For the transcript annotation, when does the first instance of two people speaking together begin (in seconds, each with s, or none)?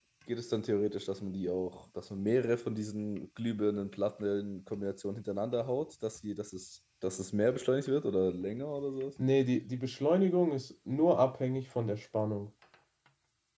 none